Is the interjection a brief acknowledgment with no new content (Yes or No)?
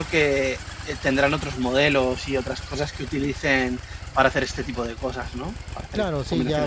No